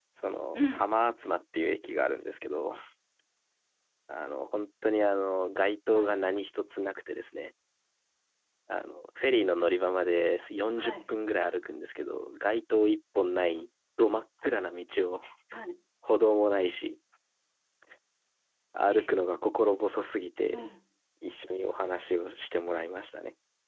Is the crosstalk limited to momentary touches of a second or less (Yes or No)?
Yes